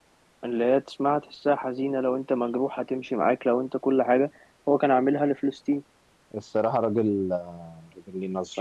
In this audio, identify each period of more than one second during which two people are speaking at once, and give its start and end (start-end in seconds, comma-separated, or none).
none